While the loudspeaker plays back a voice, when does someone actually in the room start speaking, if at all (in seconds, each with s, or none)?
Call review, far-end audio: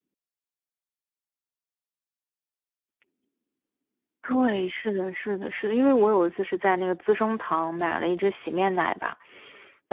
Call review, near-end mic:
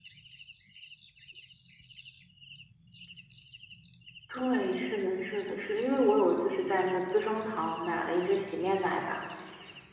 none